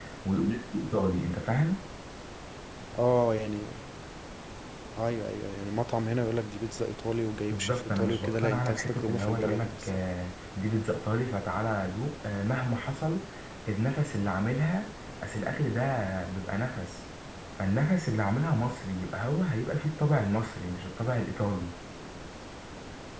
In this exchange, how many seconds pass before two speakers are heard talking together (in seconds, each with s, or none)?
7.5 s